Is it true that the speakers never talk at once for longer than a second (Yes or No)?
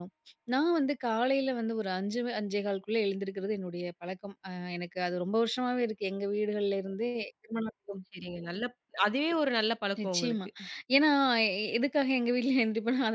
Yes